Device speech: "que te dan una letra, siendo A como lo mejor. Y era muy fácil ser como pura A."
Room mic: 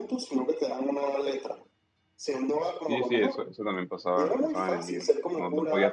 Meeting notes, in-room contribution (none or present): present